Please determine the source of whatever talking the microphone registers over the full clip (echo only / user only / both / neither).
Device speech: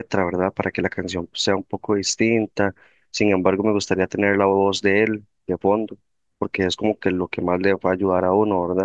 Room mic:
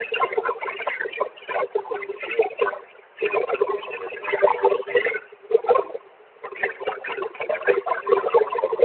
echo only